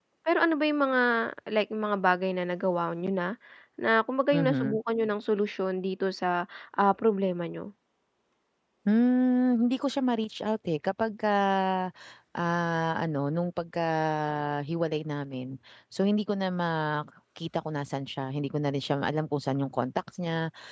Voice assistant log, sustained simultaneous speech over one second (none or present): none